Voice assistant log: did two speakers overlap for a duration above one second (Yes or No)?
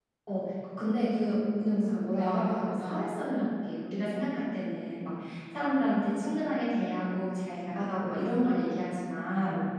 Yes